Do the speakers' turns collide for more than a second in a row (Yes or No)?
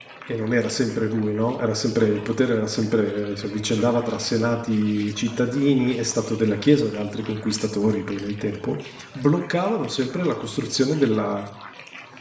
No